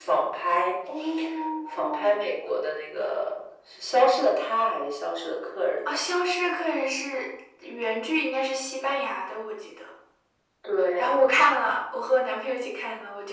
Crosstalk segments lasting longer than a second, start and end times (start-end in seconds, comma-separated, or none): none